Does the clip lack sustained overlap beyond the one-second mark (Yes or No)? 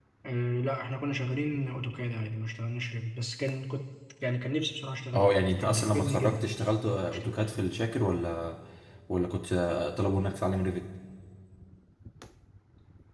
No